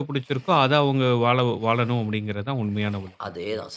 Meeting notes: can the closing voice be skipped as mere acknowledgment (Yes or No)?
No